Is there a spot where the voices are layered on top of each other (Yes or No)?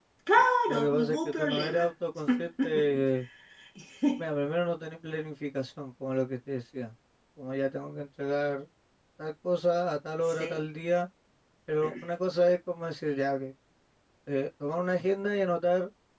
Yes